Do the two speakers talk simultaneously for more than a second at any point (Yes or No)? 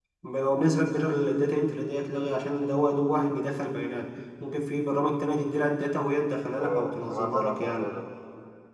Yes